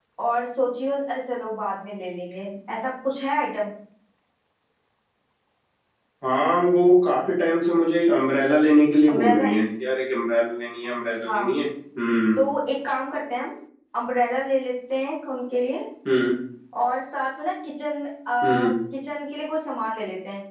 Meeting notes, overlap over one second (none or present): none